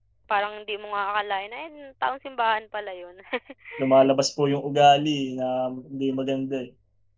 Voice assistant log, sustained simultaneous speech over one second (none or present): none